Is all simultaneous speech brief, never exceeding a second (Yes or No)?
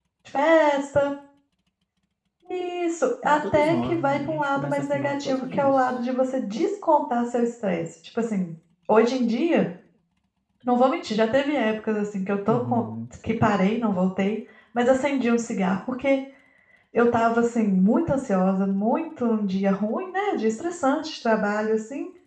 No